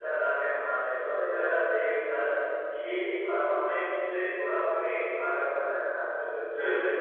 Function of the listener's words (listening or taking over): listening